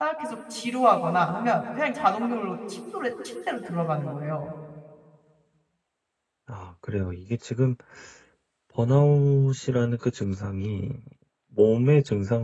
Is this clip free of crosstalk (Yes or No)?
Yes